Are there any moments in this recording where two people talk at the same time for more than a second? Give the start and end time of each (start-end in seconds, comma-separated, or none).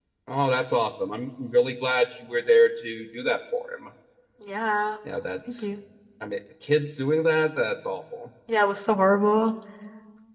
none